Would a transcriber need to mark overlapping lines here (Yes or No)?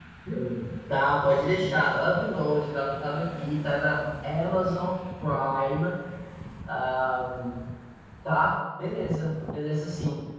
No